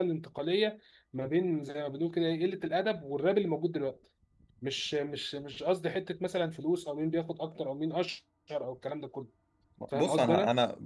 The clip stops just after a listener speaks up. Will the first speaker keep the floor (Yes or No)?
No